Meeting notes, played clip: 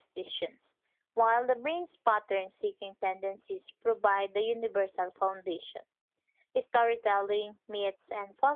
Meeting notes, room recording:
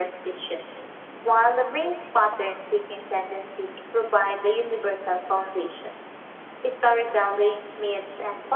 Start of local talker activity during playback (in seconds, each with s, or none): none